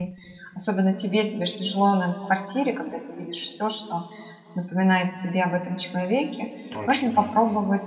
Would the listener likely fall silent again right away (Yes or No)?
Yes